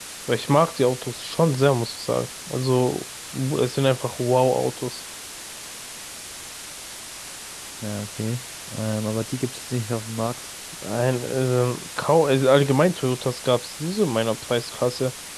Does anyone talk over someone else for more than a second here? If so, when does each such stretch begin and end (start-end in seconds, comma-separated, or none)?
none